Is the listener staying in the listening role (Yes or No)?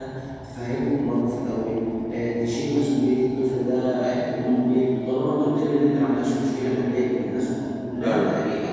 Yes